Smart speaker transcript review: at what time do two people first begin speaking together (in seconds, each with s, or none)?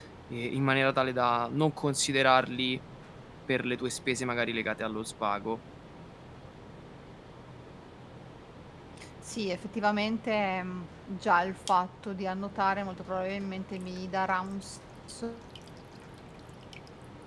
none